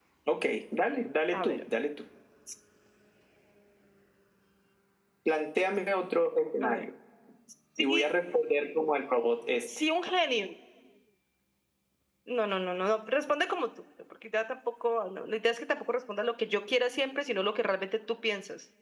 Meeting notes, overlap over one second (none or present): none